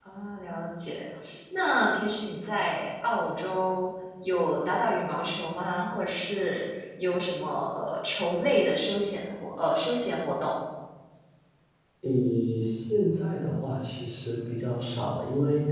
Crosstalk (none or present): none